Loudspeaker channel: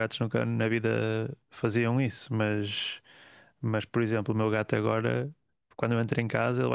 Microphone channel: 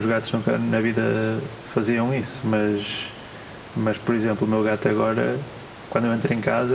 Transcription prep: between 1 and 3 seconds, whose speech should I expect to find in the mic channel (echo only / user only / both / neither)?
echo only